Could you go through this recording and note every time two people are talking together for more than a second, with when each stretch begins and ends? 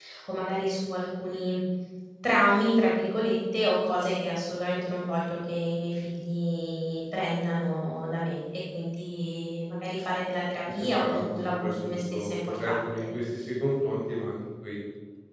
10.7-12.9

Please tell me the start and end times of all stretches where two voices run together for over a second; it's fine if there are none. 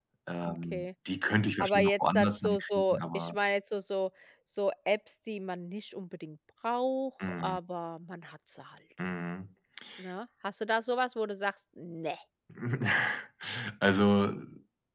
1.6-3.4

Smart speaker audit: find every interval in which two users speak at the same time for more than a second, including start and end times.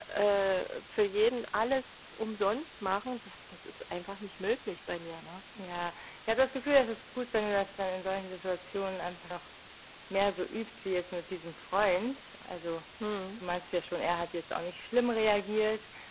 none

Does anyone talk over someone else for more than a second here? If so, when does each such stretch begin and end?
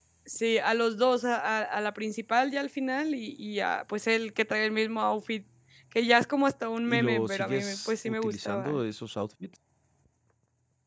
6.9-8.8

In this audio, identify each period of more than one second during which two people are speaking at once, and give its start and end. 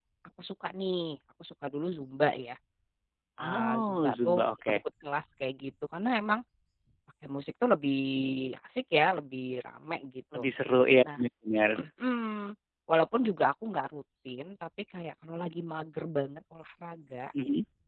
3.4-4.8

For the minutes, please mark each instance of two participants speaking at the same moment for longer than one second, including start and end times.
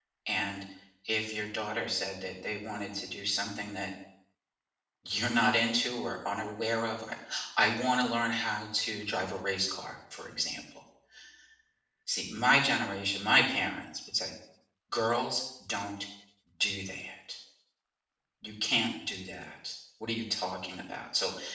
none

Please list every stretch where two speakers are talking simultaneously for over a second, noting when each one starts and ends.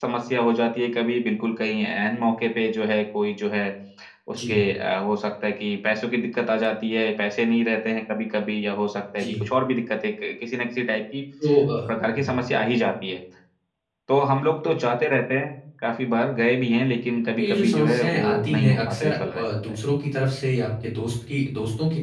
17.4-19.5

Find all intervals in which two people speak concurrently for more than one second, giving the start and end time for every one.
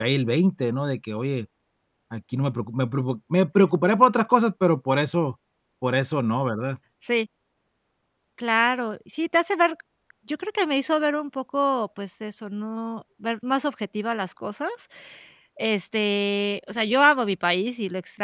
none

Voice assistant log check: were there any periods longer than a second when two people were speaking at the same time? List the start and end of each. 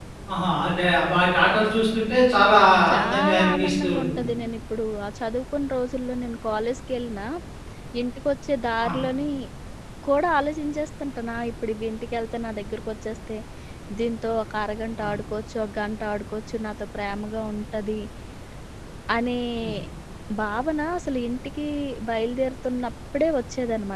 2.9-4.3

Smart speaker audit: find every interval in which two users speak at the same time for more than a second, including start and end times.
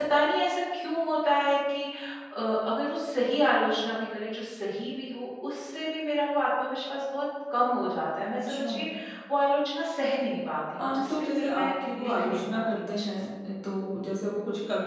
10.7-13.1

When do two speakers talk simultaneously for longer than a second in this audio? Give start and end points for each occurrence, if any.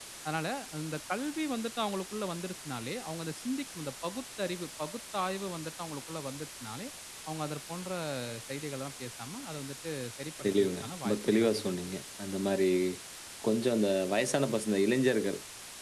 10.4-11.8

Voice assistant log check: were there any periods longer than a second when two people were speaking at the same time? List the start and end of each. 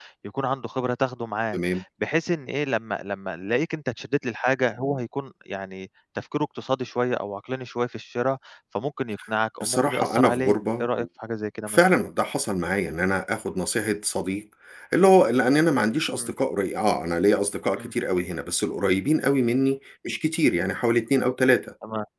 9.6-11.1

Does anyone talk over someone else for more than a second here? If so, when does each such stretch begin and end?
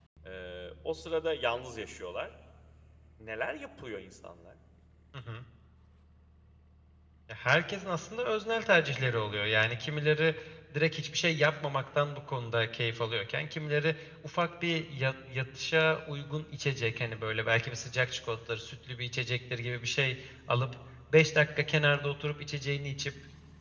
none

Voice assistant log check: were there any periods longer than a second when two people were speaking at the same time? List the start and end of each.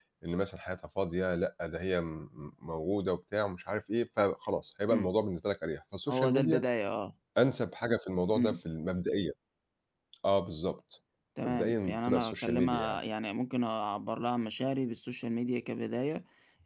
11.5-13.0

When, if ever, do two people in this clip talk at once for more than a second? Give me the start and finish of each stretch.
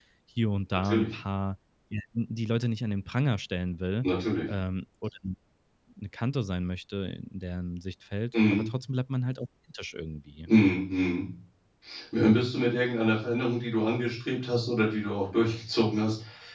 none

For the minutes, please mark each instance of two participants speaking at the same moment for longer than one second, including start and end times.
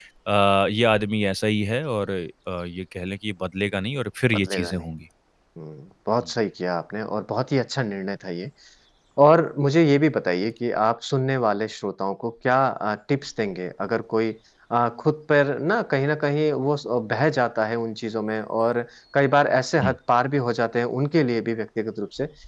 none

